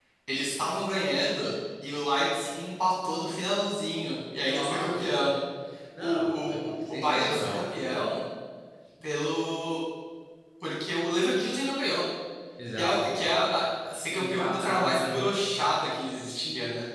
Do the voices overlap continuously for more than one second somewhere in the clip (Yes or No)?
Yes